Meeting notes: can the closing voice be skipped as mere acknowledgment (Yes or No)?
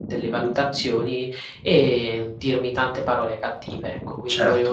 Yes